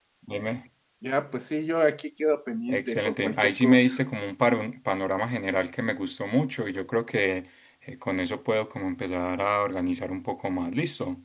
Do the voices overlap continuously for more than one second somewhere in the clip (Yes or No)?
Yes